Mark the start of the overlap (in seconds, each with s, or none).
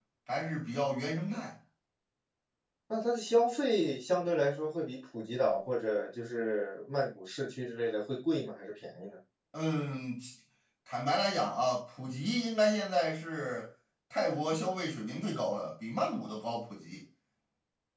none